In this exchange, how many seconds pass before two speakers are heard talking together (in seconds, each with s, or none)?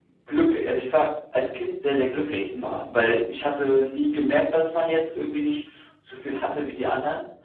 none